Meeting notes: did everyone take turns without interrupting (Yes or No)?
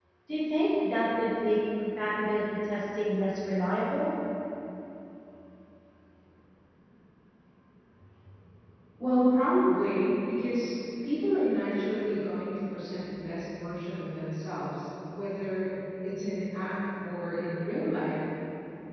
Yes